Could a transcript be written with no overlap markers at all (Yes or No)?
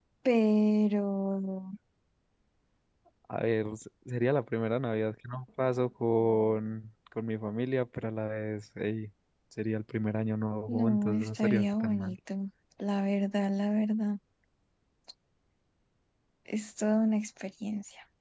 No